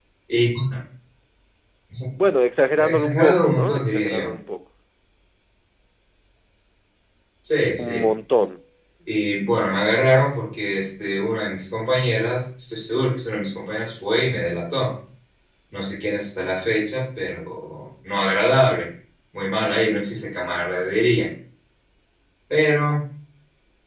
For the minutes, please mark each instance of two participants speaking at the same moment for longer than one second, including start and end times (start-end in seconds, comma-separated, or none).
2.8-4.3